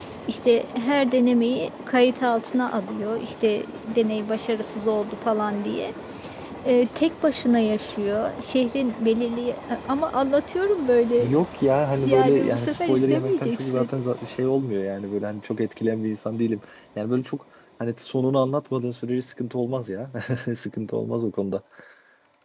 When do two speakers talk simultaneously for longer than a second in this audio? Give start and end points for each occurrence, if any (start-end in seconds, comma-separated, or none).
12.0-13.9